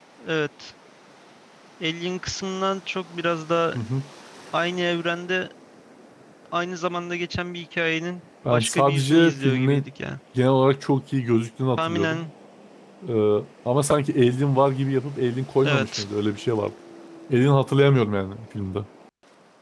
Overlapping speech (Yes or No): Yes